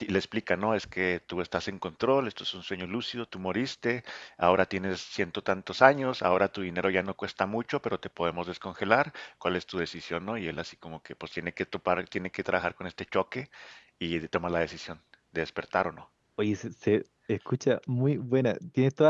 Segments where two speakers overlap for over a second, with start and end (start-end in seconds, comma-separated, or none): none